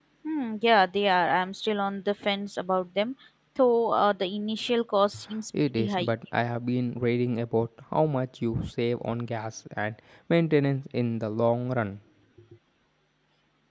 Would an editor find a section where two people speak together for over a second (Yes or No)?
No